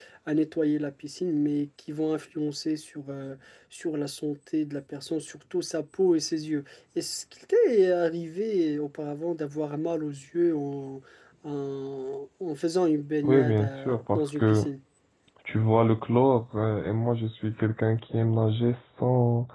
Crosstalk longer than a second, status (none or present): present